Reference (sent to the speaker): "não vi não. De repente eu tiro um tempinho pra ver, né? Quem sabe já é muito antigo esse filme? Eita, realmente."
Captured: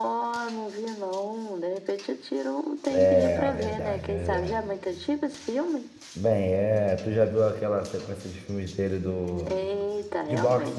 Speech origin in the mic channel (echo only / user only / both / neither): both